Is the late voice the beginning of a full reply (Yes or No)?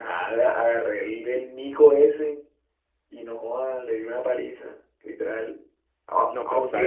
Yes